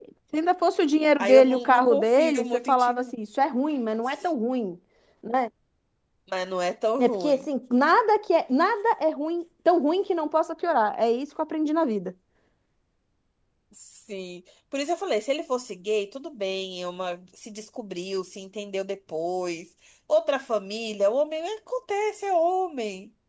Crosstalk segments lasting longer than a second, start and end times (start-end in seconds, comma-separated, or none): 1.2-3.1